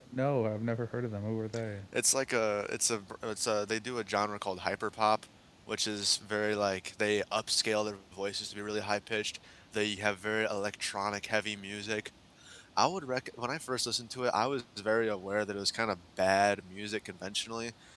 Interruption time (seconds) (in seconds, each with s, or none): none